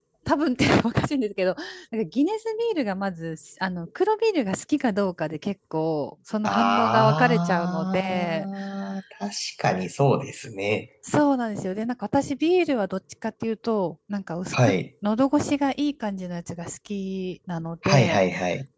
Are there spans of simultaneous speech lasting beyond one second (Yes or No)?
Yes